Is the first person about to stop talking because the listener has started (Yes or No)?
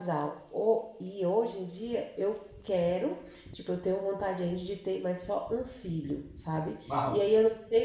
No